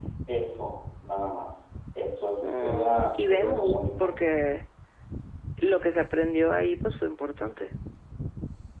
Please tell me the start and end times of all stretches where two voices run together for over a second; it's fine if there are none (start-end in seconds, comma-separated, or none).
2.4-4.1